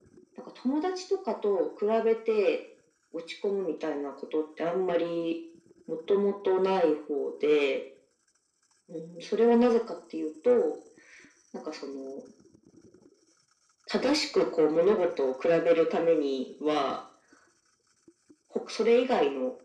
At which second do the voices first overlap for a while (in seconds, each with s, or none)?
none